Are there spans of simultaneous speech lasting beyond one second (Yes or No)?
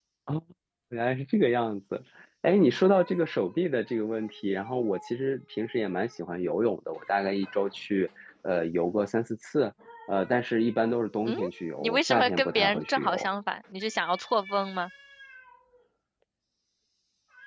Yes